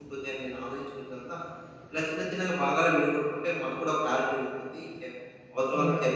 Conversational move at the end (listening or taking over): listening